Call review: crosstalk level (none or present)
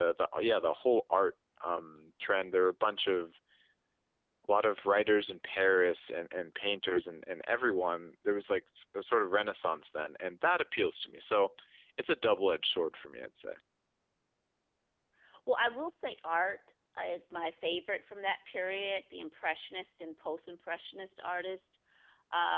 none